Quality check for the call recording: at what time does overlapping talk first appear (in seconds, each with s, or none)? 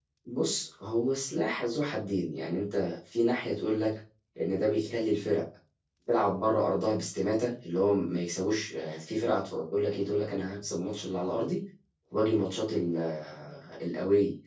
none